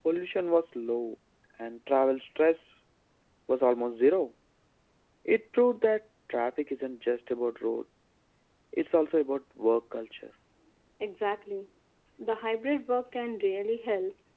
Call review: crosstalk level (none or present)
none